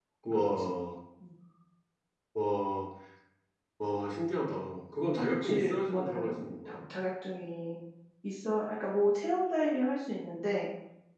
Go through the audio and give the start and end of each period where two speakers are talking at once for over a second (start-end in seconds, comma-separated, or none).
5.2-6.8